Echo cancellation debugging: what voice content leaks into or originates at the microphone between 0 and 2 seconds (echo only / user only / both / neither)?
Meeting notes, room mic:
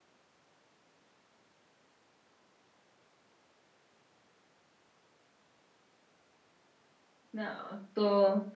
neither